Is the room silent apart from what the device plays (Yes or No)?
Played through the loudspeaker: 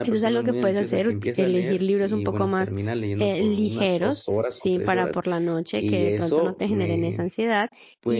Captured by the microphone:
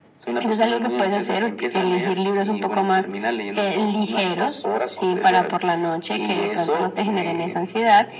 Yes